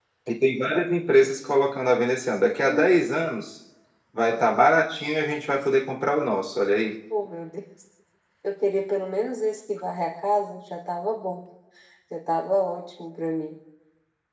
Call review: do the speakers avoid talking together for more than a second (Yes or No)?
Yes